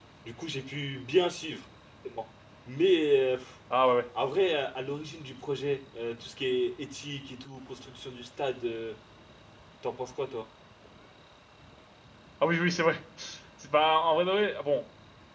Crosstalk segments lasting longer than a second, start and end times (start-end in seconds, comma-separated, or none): none